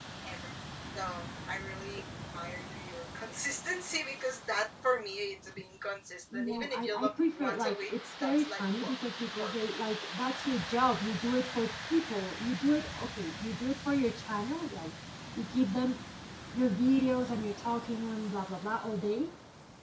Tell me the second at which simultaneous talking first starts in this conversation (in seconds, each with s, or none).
6.3 s